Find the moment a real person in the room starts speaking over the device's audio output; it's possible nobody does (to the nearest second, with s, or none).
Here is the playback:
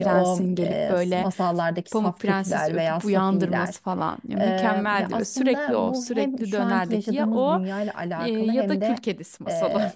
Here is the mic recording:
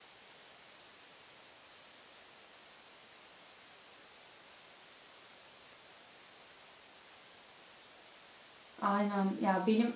9 s